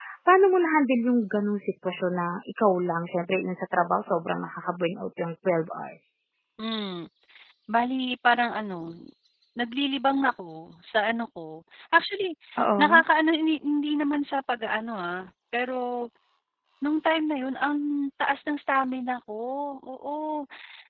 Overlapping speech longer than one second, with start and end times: none

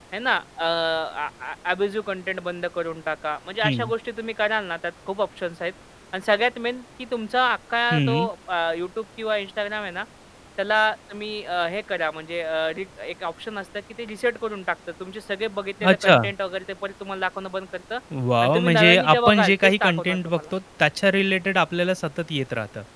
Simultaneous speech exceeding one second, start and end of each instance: 18.4-20.4

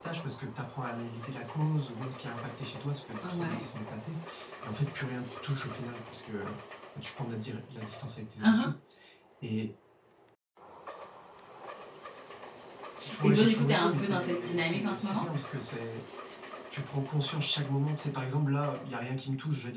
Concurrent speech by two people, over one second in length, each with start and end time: 13.2-15.2

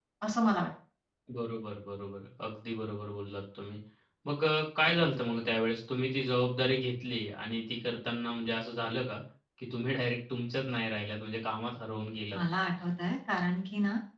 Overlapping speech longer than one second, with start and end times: none

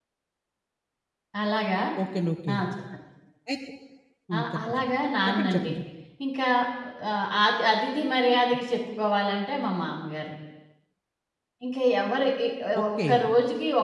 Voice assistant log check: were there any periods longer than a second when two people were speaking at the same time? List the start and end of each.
none

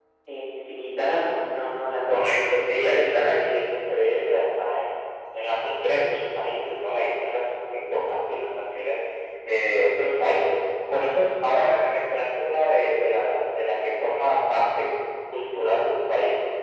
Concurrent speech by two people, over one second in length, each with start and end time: 2.1-3.3

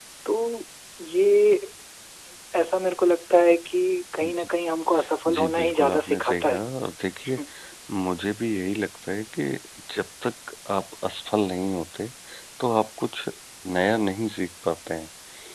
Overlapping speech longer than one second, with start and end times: 5.3-6.6

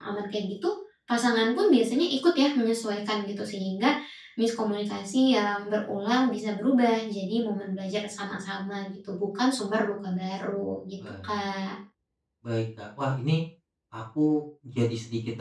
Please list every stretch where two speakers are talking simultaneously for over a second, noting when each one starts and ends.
none

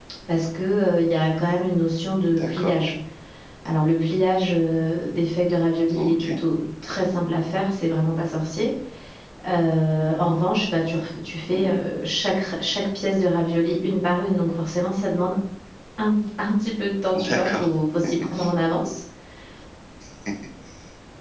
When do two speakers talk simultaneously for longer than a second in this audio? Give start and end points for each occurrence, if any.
none

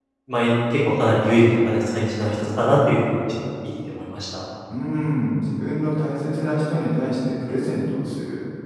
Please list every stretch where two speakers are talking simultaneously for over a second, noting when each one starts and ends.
none

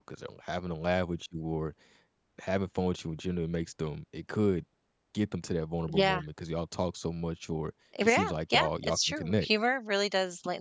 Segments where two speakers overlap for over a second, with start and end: 8.0-9.5

